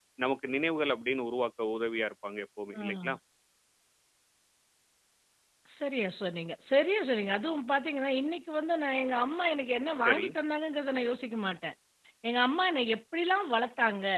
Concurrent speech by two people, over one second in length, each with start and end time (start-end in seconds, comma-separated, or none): none